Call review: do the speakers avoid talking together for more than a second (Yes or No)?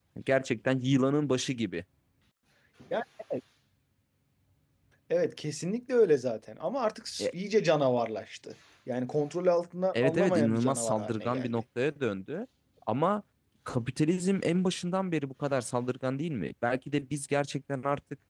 No